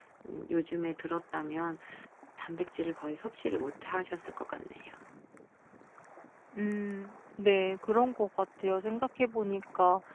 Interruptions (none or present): none